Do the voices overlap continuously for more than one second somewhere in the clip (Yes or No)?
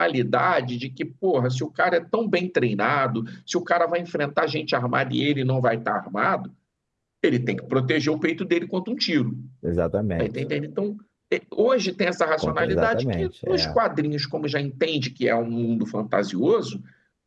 Yes